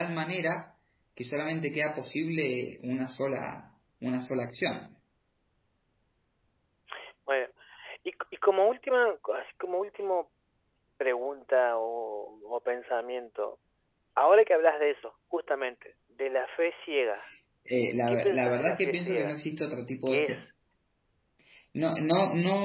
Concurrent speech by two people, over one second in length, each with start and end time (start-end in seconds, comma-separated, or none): 18.1-19.3